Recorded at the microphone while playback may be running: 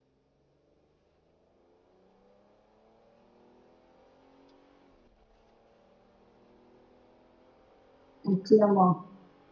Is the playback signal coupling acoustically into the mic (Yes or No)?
No